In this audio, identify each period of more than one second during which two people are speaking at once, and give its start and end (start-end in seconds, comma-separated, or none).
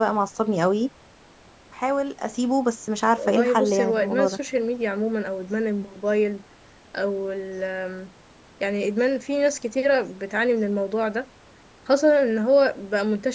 3.2-4.4